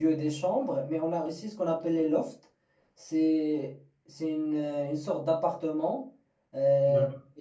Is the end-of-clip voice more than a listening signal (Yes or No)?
No